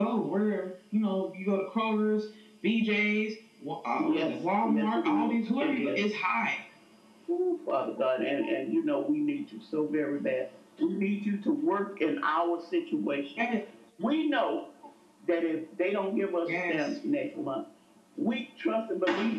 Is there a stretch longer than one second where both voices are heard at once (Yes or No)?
Yes